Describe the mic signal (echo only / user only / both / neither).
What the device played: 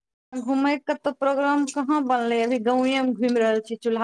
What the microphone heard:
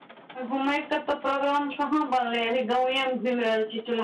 echo only